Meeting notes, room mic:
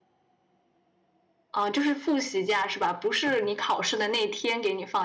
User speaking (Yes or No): Yes